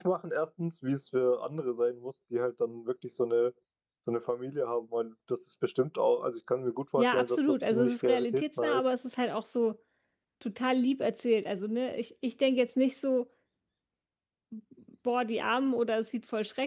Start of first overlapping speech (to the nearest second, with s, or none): 7 s